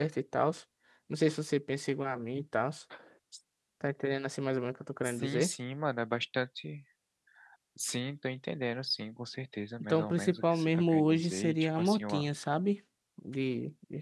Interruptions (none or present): present